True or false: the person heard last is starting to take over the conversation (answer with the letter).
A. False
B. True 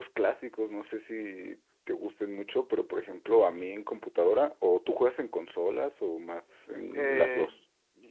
B